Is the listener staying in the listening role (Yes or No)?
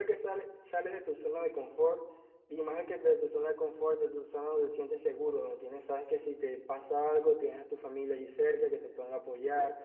Yes